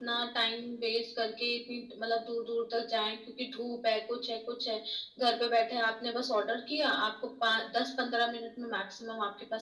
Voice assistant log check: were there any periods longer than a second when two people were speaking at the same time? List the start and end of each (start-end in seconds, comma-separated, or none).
none